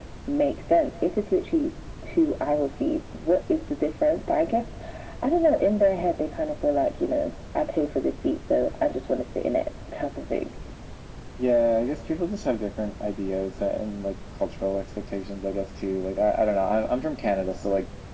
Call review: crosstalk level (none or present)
none